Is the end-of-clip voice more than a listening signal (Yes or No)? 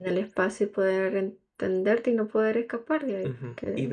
Yes